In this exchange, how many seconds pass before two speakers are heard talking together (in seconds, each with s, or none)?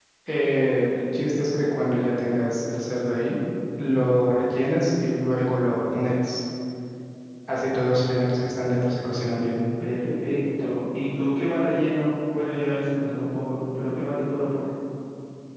none